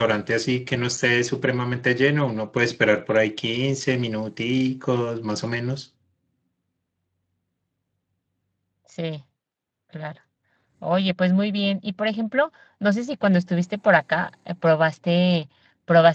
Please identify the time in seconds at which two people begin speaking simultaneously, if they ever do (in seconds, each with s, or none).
none